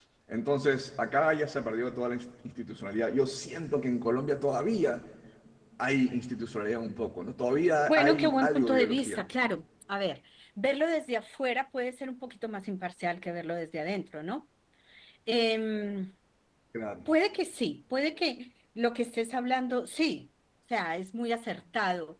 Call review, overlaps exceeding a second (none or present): present